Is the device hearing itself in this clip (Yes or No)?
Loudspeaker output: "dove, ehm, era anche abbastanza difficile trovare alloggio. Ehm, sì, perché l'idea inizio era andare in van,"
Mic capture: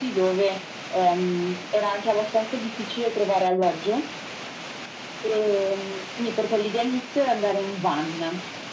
Yes